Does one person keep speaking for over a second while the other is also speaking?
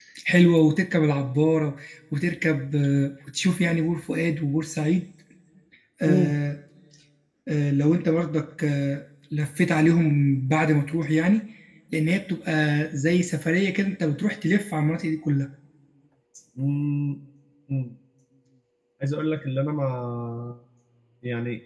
No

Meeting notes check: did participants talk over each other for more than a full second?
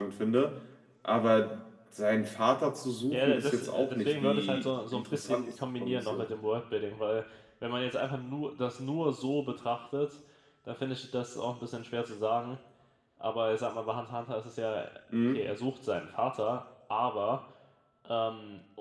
Yes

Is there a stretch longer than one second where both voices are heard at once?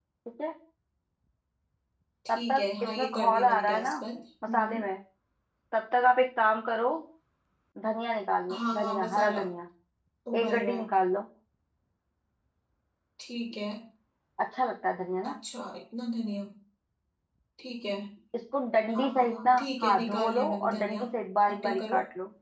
Yes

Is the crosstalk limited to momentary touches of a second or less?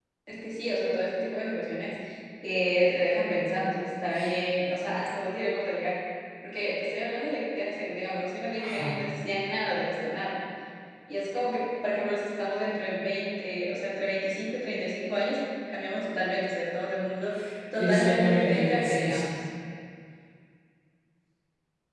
No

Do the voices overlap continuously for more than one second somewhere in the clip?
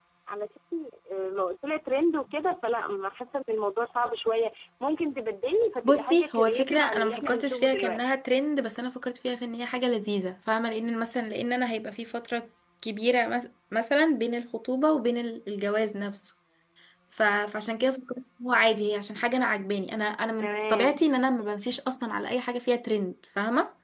Yes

